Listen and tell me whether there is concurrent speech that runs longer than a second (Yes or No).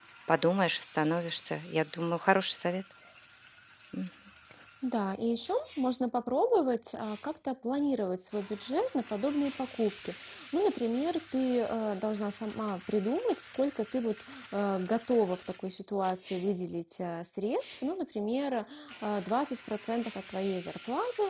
No